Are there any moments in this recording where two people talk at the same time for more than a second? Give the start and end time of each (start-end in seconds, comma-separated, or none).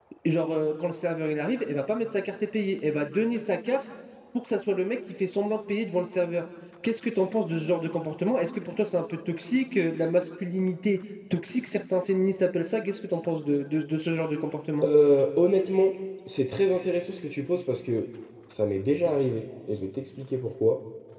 none